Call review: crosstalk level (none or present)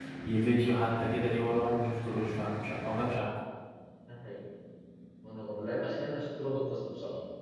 none